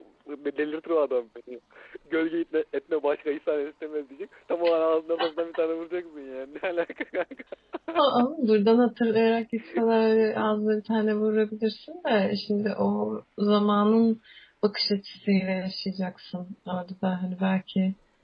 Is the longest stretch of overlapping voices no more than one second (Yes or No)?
Yes